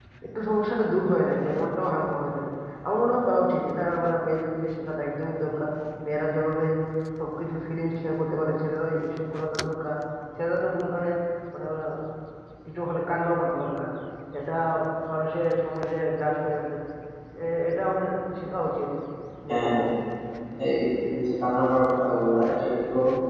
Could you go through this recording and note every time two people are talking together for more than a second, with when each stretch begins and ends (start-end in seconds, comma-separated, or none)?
none